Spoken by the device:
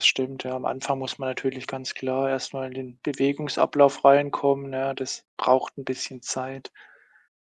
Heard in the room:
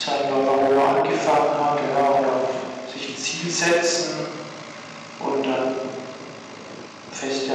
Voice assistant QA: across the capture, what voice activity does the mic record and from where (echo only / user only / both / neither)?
user only